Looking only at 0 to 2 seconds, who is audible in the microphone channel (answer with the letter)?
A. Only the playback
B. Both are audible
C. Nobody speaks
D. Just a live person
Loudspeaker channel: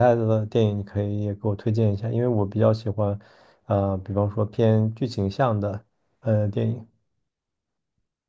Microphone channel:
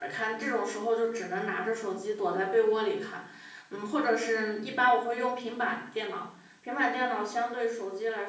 D